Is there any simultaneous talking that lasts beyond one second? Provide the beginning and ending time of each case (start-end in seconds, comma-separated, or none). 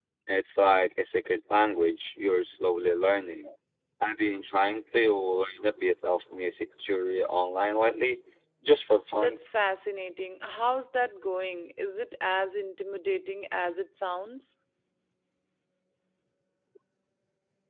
none